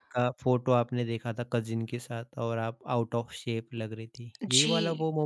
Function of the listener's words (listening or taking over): taking over